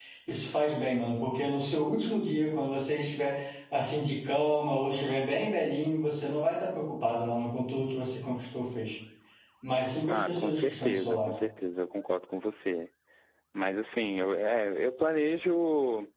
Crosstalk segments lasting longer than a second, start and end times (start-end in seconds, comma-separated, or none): 10.1-11.4